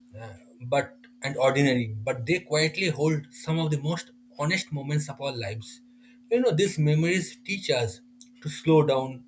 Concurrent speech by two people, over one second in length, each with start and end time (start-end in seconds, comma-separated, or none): none